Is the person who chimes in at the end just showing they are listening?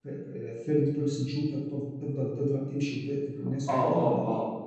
No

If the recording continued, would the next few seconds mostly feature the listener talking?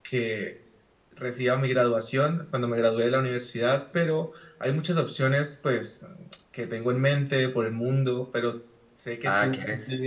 Yes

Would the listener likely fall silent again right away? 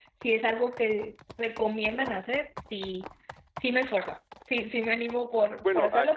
No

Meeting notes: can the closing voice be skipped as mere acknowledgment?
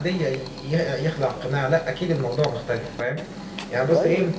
Yes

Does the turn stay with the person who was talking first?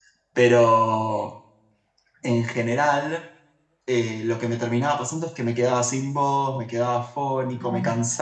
Yes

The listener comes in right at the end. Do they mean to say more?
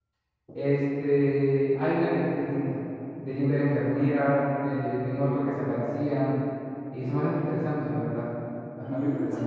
Yes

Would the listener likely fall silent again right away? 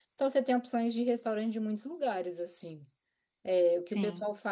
Yes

